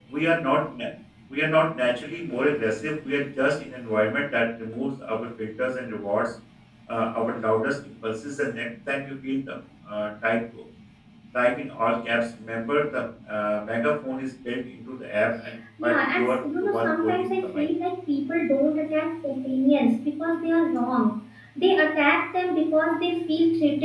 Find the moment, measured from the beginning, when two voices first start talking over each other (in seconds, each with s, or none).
15.8 s